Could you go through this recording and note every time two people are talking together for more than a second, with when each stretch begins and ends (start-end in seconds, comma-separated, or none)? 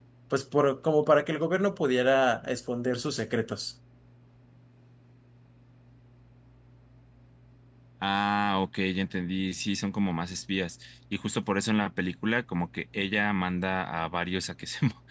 none